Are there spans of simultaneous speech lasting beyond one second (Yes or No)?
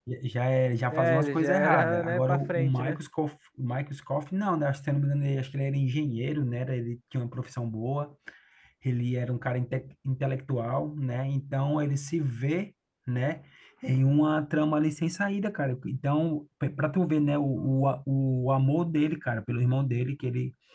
Yes